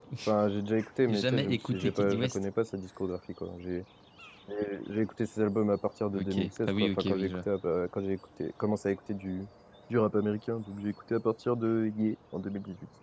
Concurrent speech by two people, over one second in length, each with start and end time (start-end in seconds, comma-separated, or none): 1.1-2.4, 6.1-7.4